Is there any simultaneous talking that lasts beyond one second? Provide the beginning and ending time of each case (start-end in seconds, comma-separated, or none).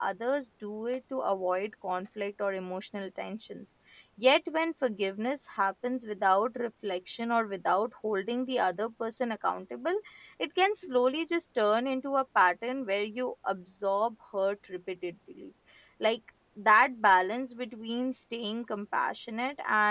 none